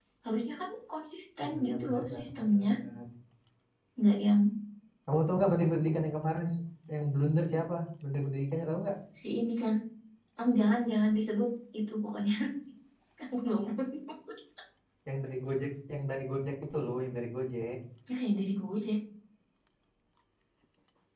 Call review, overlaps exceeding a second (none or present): present